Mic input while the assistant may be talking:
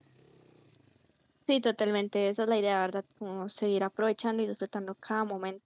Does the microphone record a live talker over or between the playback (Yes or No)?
Yes